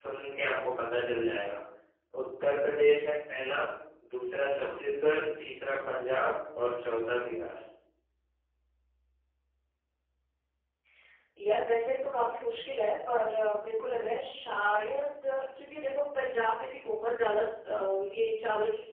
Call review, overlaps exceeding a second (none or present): none